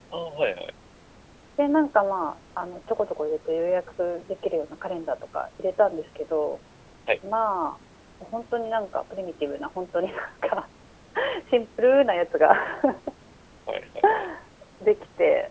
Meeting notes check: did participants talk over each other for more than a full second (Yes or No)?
No